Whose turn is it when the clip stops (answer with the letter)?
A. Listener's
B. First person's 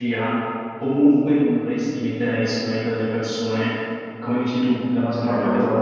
B